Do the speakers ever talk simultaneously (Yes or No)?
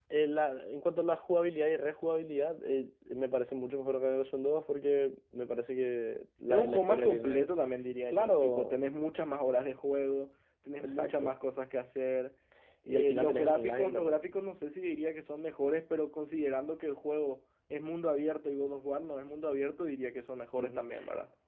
Yes